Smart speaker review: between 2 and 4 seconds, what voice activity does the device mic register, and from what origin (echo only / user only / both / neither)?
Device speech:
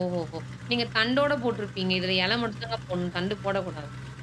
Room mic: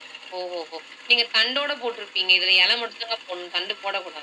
echo only